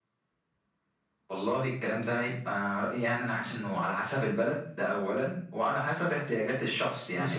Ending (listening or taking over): taking over